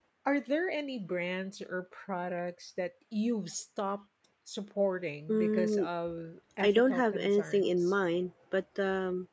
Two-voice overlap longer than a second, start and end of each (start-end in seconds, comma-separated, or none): 6.6-7.9